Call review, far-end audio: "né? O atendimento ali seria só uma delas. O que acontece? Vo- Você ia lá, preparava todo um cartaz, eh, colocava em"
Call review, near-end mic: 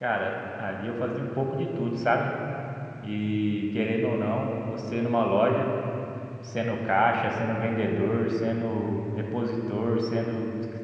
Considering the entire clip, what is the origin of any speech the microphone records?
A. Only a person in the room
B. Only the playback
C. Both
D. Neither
A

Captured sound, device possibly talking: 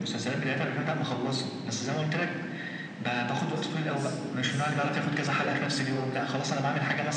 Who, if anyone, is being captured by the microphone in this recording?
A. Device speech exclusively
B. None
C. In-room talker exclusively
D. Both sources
D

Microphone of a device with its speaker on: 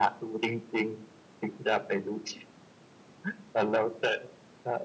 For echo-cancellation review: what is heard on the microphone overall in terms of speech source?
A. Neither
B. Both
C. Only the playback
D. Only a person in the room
C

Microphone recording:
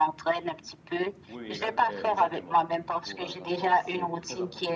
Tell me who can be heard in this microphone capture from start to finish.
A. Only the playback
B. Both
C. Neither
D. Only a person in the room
B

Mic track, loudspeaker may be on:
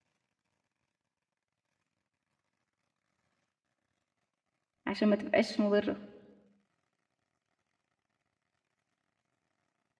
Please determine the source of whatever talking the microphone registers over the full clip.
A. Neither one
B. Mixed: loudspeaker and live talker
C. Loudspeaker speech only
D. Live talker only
D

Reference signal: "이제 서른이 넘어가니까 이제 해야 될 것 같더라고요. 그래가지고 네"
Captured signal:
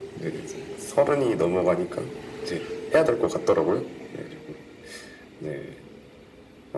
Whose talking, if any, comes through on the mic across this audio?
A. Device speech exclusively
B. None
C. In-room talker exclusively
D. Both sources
A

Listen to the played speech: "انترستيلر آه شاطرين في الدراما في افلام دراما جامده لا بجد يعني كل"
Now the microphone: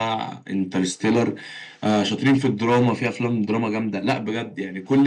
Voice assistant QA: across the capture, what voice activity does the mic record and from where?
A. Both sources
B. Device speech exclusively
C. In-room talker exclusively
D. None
B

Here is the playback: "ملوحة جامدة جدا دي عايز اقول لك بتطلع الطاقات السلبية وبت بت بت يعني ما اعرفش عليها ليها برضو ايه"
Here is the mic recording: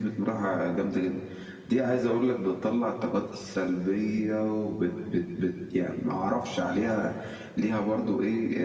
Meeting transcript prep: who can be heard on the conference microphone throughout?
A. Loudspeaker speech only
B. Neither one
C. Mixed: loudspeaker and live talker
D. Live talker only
A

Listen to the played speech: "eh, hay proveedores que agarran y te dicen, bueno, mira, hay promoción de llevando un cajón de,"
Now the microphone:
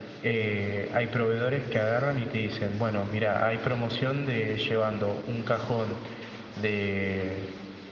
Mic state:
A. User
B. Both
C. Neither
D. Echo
D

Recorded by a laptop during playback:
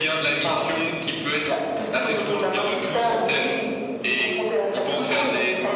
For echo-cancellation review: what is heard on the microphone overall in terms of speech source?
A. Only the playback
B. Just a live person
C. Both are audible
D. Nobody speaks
A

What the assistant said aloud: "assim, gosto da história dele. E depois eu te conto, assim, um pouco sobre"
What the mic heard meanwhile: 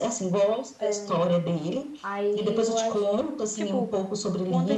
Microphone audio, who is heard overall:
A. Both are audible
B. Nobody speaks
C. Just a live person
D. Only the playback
A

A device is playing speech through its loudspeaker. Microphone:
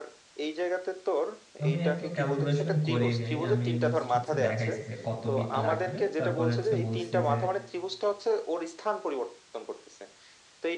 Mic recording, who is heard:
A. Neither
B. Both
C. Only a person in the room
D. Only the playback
B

